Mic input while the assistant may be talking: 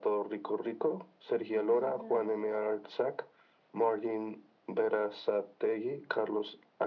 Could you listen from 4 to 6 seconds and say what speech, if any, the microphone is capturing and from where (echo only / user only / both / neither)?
echo only